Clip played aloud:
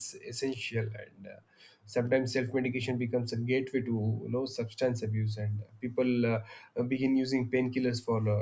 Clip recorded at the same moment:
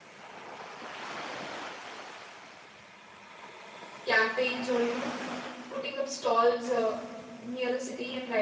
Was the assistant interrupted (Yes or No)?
Yes